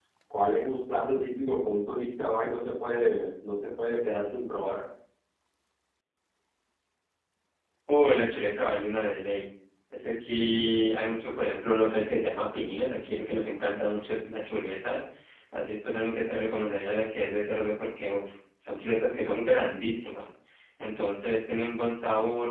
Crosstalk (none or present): none